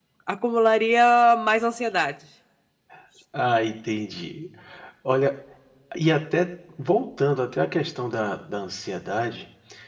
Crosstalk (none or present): none